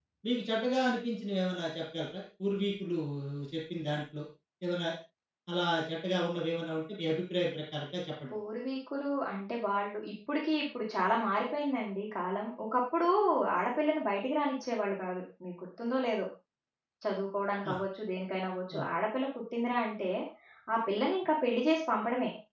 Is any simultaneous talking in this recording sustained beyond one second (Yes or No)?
No